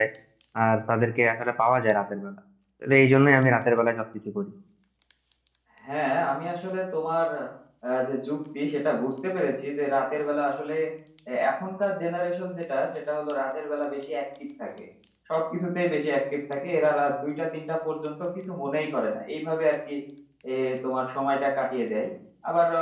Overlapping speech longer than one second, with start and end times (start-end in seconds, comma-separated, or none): none